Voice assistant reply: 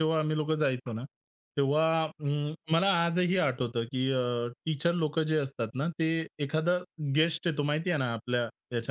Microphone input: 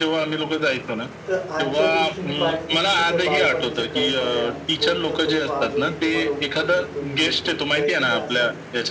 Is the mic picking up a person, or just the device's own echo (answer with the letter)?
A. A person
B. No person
A